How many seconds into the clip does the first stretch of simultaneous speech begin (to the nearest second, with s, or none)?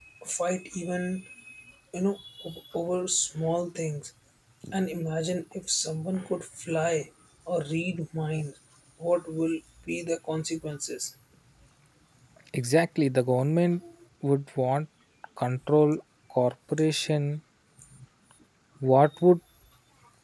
none